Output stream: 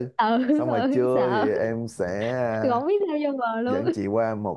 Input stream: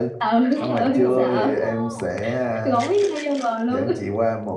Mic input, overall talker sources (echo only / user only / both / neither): both